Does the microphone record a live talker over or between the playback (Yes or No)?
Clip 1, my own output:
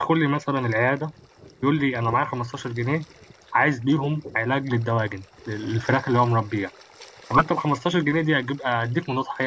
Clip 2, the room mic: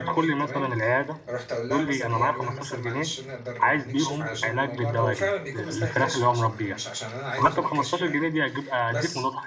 Yes